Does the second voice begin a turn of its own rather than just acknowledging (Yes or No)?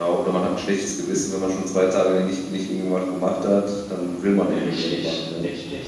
Yes